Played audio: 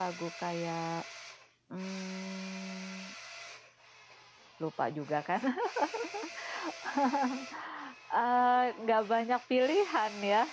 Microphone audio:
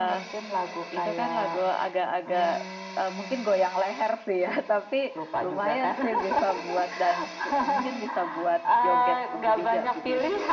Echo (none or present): present